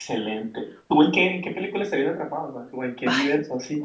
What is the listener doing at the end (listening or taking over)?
taking over